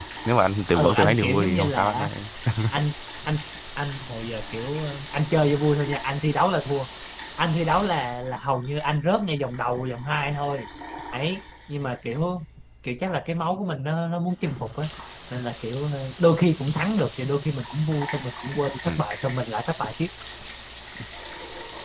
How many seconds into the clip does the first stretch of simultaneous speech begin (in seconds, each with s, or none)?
0.7 s